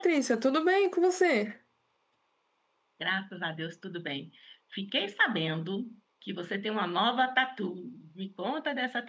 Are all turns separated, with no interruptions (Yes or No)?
Yes